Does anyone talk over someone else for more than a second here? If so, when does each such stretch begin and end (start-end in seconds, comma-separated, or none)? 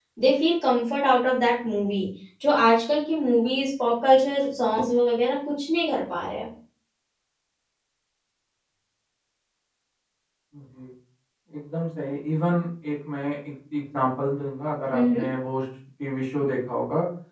none